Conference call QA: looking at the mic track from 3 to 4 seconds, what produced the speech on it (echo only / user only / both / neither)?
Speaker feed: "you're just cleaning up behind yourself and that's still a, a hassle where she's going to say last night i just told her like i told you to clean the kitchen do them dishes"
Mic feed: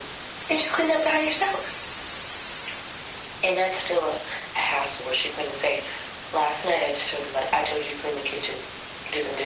echo only